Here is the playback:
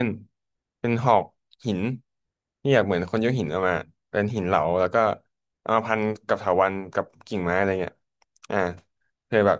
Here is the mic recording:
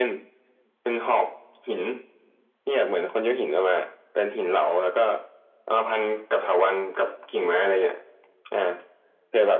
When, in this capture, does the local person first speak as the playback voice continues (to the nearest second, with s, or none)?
none